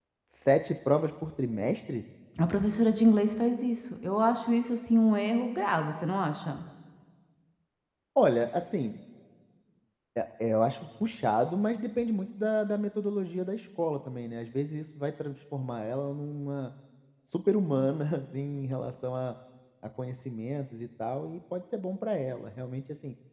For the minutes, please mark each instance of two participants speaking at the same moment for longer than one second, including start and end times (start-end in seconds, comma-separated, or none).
none